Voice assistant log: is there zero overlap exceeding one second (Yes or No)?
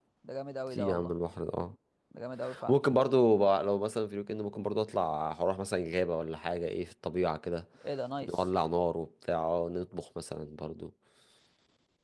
Yes